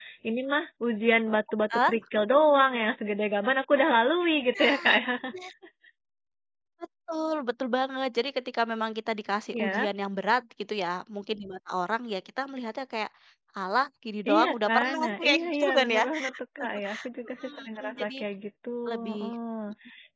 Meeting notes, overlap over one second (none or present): present